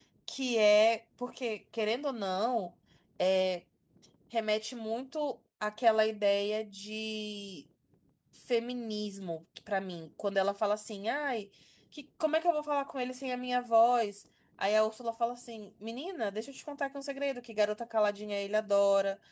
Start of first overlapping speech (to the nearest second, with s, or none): none